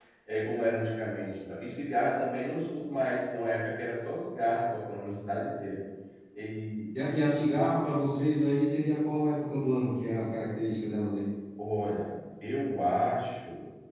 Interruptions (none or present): none